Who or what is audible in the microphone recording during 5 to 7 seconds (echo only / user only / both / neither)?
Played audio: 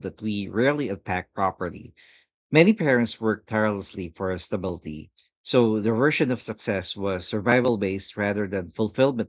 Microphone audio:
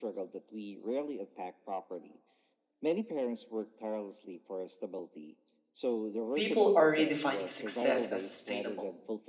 both